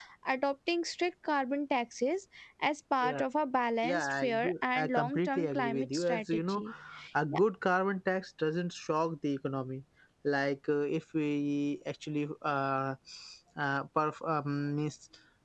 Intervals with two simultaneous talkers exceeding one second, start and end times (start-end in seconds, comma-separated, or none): 3.8-6.6